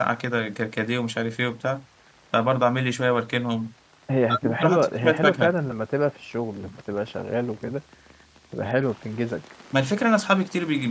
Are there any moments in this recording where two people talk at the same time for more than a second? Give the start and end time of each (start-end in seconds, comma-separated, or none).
4.3-5.5